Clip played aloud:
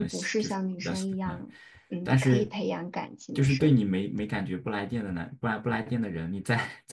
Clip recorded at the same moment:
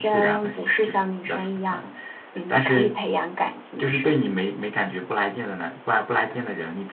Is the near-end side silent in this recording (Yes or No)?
Yes